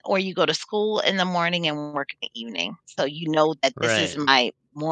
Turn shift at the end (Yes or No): No